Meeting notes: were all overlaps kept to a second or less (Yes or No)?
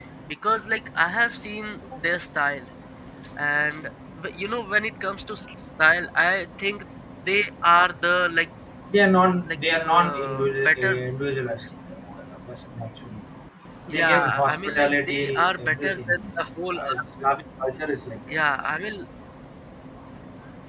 No